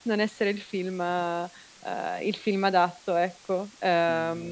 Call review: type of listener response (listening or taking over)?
taking over